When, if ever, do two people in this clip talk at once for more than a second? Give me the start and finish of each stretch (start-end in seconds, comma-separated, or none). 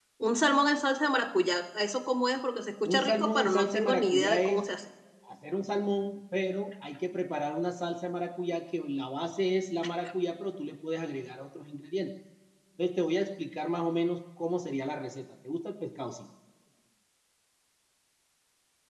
2.8-4.6